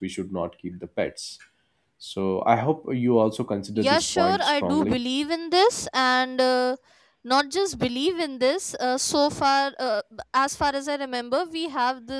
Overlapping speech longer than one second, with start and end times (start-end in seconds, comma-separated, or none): 3.8-5.0